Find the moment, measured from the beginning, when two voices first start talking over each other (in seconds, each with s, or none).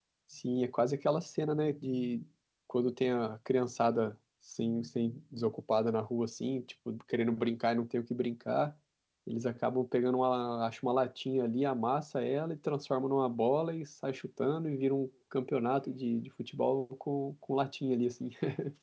none